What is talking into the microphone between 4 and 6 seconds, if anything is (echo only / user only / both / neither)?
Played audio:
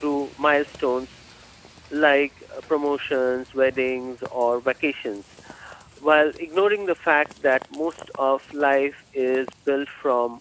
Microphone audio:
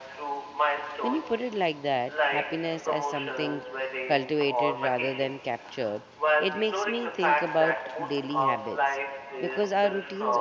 both